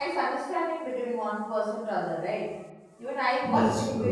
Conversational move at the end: listening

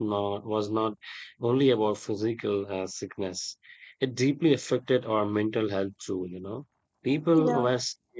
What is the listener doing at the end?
listening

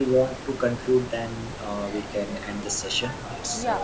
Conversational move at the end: taking over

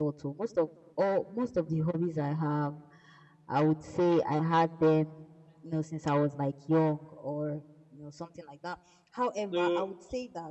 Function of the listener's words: listening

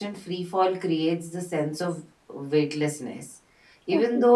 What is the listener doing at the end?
listening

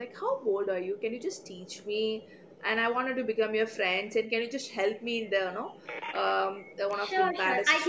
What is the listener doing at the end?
taking over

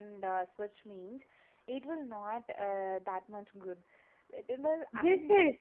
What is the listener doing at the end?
taking over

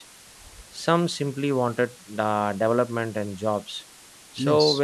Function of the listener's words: listening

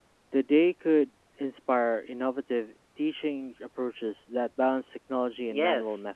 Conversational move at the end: taking over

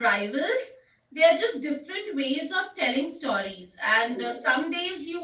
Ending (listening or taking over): listening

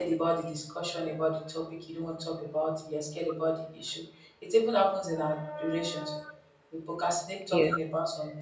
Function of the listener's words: listening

